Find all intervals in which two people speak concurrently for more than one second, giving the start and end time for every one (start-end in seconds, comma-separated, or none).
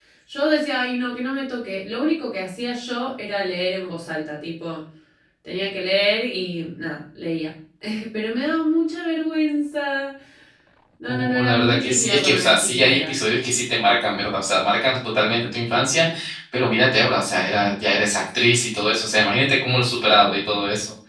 11.1-13.1